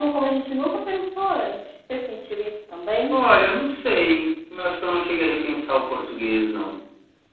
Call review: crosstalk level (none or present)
none